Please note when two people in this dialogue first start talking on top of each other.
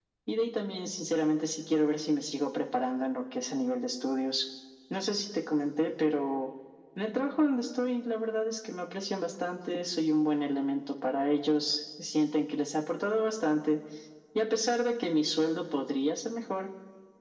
none

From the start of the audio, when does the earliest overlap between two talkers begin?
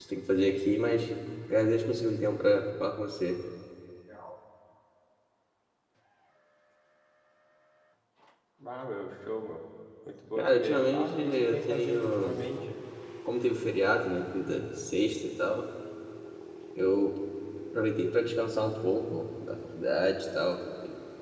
10.3 s

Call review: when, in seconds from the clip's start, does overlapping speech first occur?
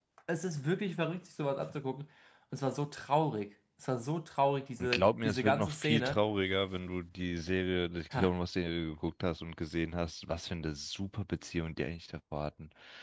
4.8 s

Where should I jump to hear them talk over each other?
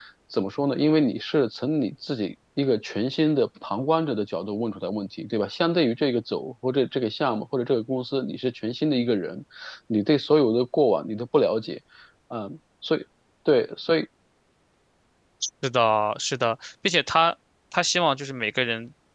none

